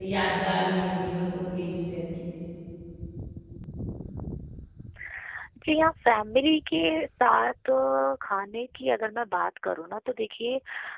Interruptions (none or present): none